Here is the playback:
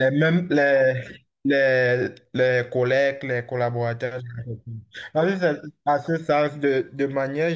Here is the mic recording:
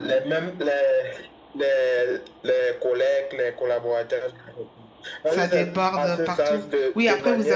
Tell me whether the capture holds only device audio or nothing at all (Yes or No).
No